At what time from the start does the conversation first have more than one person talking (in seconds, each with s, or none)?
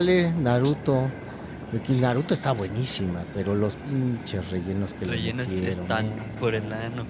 5.0 s